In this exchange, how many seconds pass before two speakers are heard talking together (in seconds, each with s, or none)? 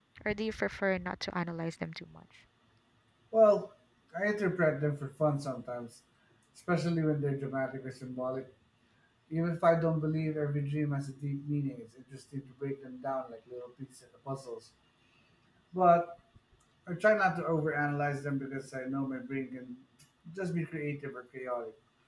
none